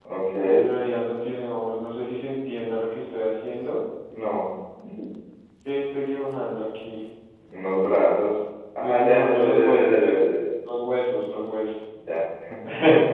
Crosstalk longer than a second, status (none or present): present